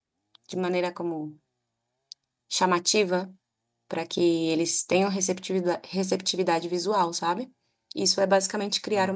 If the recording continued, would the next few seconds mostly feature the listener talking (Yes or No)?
Yes